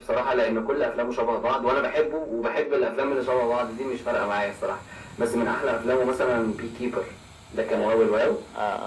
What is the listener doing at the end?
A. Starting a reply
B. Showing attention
A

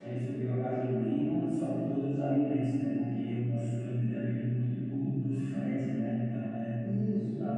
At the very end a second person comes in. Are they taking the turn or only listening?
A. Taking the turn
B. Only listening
A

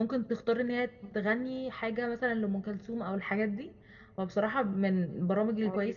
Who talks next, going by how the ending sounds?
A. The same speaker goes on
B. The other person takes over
A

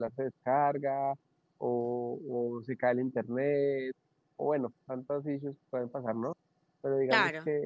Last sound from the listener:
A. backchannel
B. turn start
A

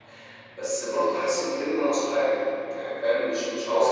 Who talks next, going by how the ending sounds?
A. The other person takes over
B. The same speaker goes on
A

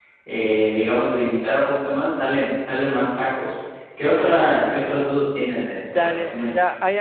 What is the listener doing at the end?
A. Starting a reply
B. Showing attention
A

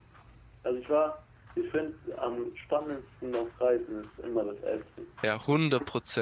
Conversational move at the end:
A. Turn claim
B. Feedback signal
A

